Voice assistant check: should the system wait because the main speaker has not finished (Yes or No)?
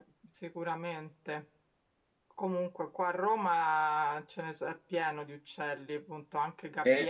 Yes